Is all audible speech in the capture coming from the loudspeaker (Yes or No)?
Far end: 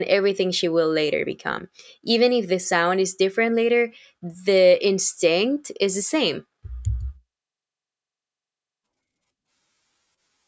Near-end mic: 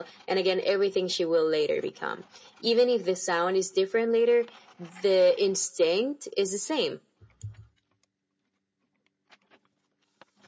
Yes